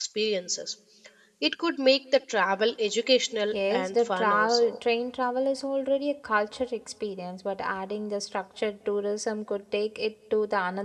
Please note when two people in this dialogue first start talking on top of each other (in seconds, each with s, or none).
3.5 s